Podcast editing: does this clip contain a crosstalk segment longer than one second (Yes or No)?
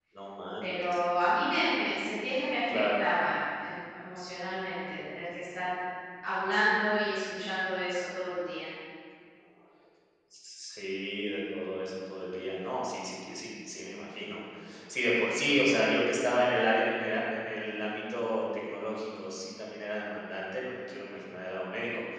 No